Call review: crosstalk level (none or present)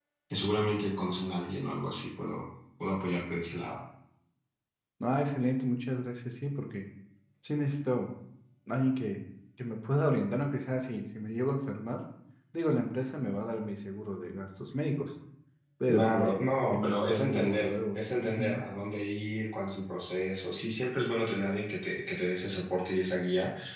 present